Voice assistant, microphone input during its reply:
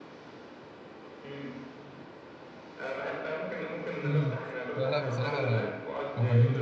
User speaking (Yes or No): Yes